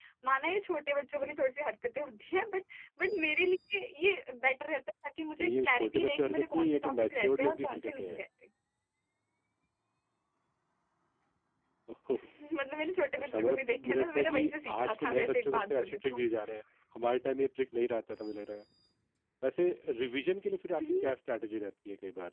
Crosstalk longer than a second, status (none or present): present